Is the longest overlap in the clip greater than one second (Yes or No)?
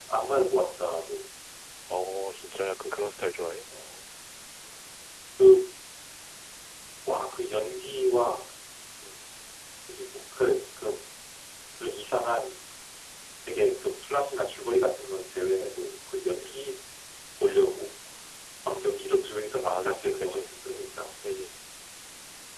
Yes